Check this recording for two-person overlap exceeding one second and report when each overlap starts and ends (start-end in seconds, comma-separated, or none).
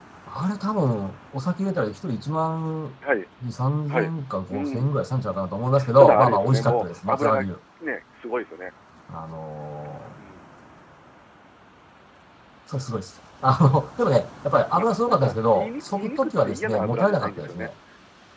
6.0-7.4, 14.8-17.7